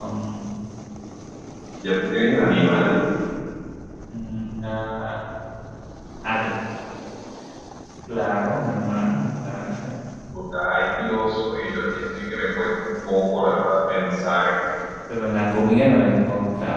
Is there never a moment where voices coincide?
Yes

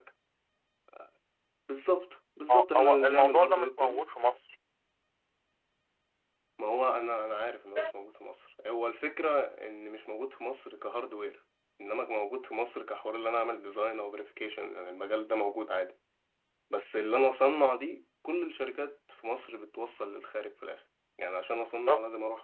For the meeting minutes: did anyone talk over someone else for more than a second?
Yes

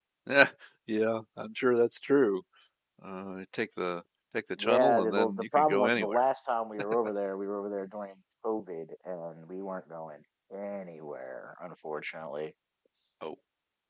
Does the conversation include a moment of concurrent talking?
Yes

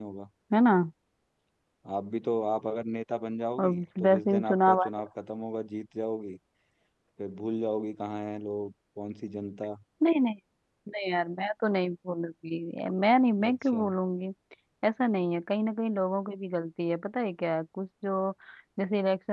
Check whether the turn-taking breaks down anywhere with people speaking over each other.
Yes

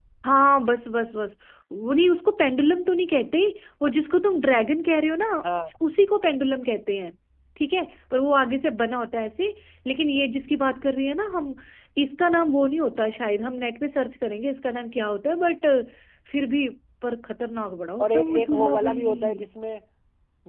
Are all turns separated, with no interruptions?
No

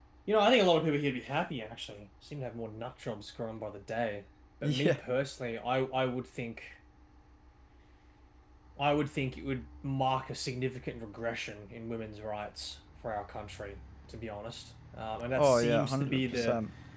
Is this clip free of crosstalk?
No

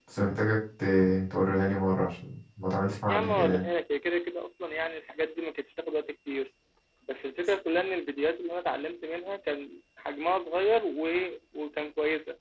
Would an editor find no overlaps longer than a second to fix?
Yes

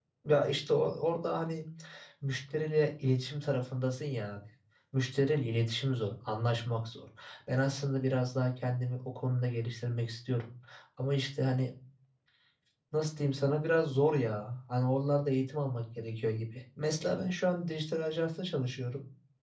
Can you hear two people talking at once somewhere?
No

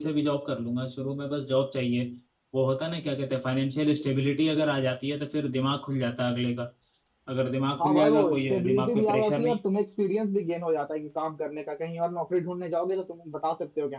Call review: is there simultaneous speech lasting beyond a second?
Yes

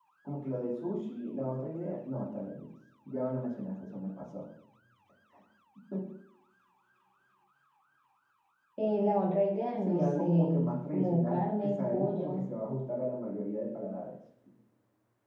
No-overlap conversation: No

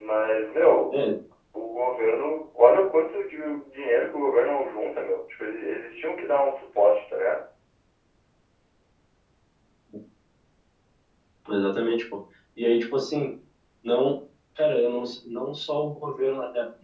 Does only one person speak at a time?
Yes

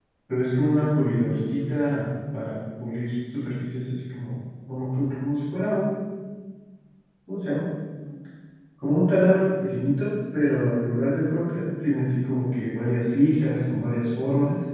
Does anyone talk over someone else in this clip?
No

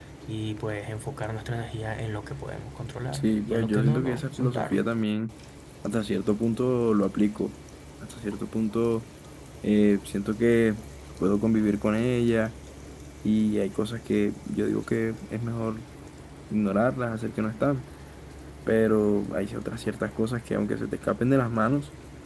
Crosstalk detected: Yes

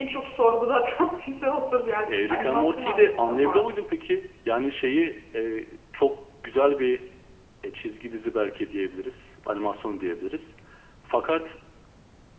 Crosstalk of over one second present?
Yes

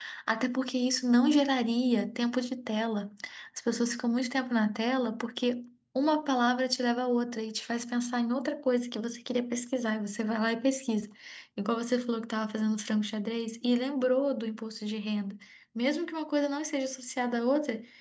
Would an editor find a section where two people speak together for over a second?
No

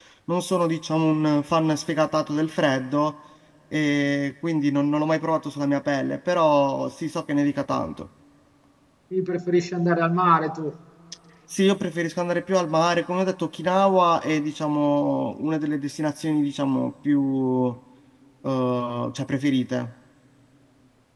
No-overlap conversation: Yes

